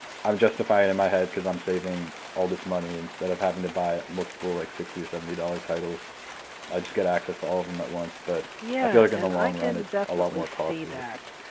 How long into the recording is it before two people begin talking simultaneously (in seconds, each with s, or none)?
8.6 s